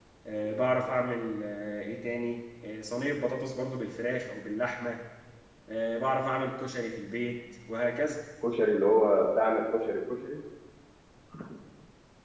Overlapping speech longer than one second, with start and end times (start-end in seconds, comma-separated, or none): none